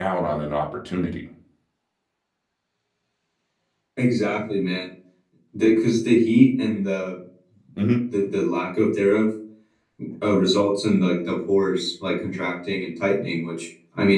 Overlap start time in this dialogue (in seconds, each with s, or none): none